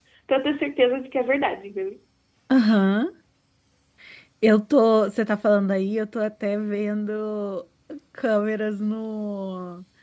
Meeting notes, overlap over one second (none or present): none